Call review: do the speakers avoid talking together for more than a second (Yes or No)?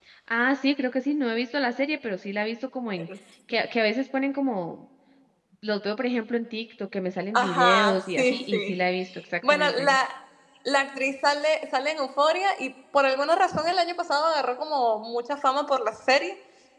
No